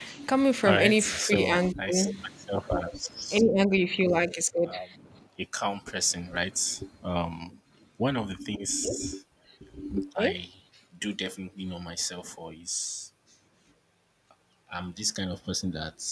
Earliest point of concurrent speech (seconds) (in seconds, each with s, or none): 0.7 s